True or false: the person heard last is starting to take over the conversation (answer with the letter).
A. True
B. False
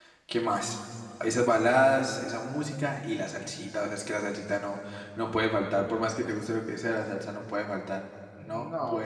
A